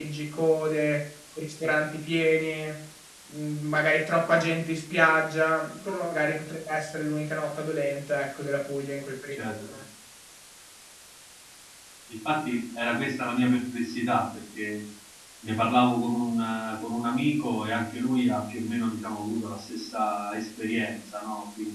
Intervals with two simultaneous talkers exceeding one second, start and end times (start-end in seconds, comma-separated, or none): none